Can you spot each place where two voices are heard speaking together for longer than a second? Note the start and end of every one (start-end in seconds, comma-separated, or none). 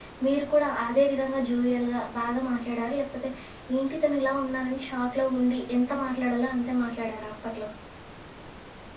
none